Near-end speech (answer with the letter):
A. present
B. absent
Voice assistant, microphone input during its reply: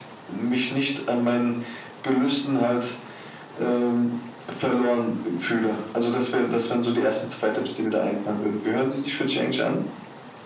B